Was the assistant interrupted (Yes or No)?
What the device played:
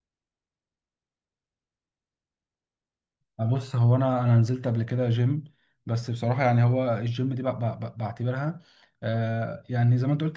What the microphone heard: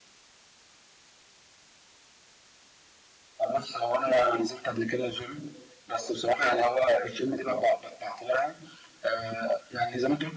No